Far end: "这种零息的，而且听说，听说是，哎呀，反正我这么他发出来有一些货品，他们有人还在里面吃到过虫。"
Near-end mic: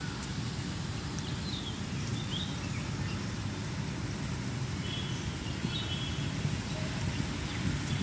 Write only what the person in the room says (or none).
none